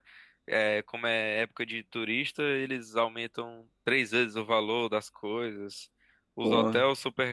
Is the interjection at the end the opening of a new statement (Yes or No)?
No